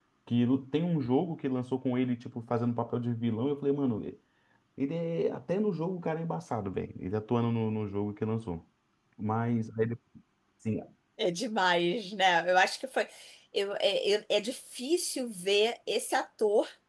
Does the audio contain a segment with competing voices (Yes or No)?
No